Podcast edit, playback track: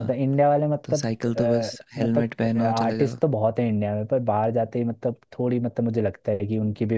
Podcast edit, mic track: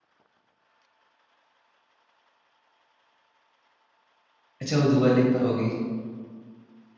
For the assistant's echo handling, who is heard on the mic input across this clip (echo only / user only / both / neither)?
user only